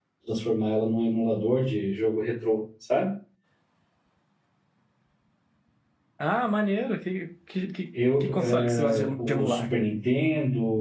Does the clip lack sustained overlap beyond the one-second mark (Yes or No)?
No